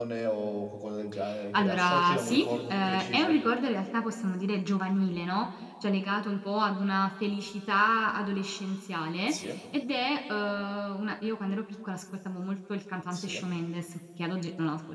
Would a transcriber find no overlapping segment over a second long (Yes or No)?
No